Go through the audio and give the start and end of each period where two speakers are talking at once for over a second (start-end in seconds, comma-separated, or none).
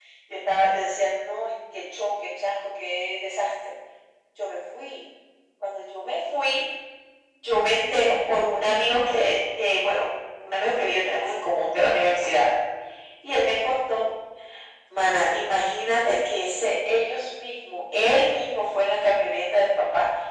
none